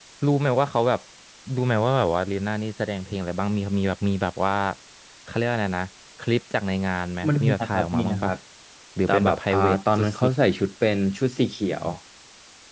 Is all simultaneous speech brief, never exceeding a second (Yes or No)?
No